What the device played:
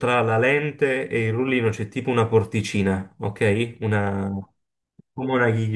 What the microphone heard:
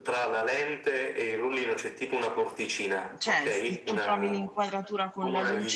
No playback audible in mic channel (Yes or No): No